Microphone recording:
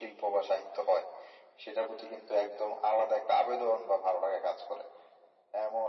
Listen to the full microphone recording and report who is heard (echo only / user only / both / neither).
echo only